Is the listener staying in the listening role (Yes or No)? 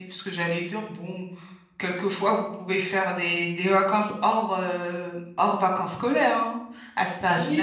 No